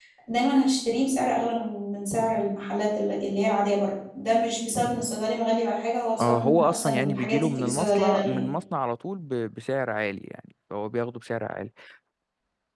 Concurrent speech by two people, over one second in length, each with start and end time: 6.2-8.5

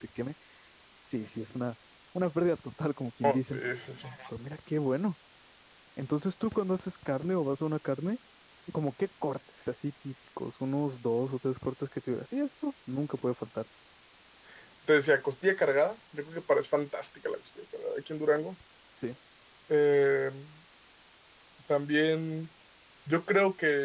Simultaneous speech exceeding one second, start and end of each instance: none

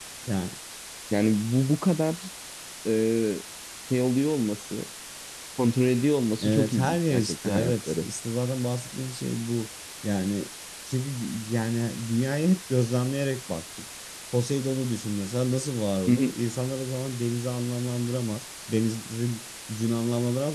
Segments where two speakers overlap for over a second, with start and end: 6.4-8.1

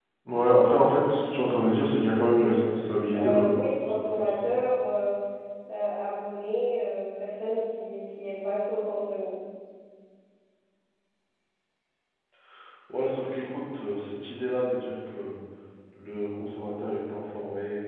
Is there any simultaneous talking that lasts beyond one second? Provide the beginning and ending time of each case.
3.1-4.6

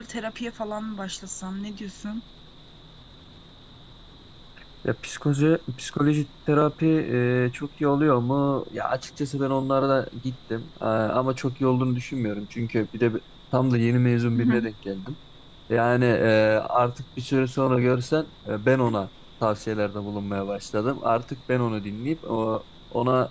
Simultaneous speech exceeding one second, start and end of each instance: none

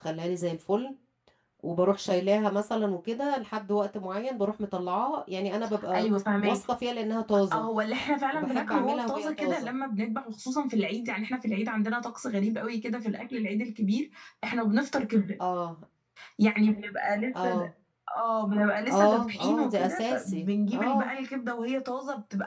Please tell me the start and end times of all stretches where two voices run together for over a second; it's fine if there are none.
8.3-9.7, 19.0-21.1

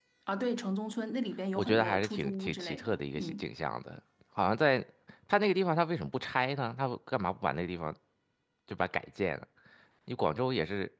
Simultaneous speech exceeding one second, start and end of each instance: 1.6-3.5

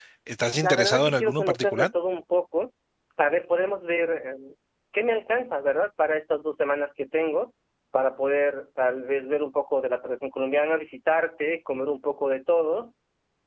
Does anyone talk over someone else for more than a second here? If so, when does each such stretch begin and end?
0.6-1.9

